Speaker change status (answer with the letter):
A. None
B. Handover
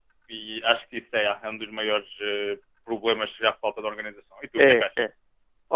B